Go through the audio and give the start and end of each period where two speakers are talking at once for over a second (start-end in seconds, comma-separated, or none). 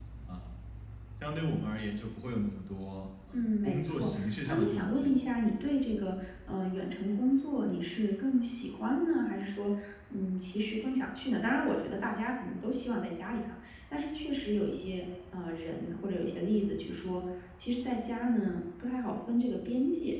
3.3-5.2